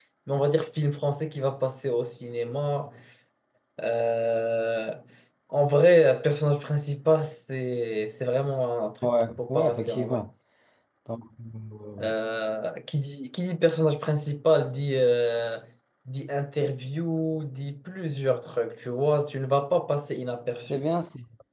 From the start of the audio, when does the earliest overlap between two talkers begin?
9.0 s

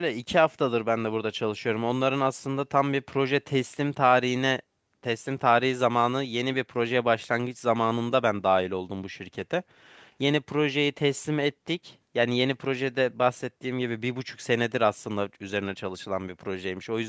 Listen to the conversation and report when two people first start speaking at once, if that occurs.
none

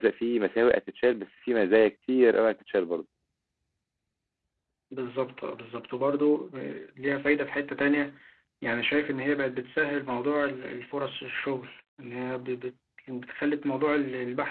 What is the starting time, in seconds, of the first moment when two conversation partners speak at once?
none

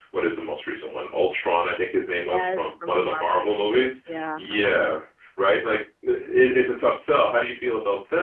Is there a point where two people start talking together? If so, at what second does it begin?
2.2 s

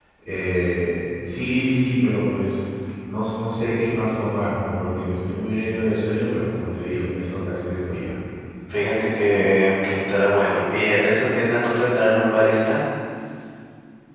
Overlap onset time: none

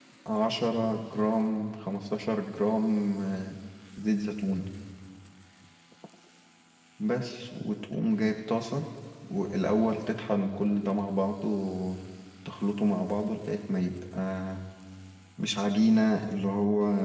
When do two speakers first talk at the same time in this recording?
none

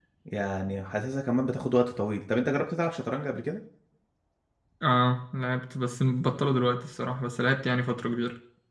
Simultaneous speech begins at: none

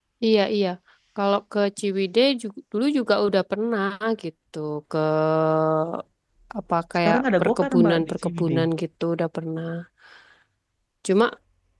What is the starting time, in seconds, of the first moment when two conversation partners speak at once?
7.0 s

